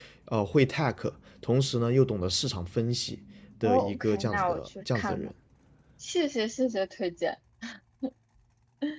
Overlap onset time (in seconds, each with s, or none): 3.6 s